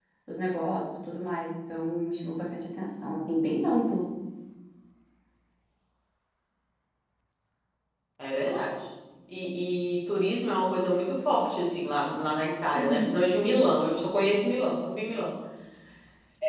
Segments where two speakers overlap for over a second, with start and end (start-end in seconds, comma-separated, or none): none